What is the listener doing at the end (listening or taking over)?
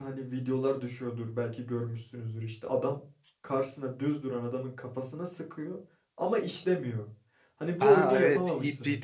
taking over